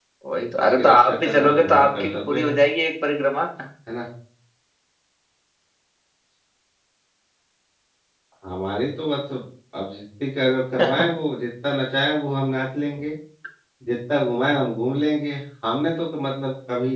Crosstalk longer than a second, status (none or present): present